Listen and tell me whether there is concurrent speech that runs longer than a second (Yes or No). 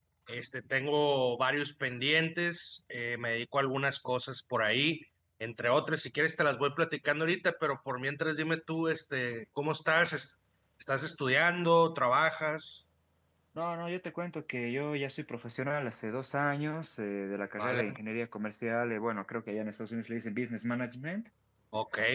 No